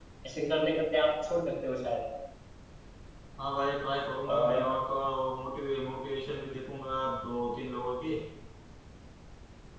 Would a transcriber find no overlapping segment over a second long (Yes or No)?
Yes